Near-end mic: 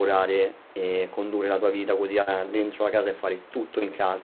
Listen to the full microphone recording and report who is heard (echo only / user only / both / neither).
user only